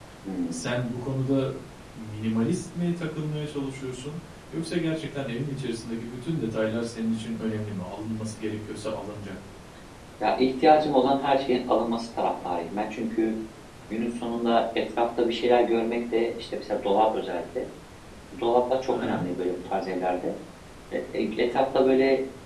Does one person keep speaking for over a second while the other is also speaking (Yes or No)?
No